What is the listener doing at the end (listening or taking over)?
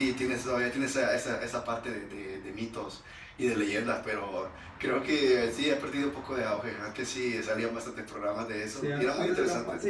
taking over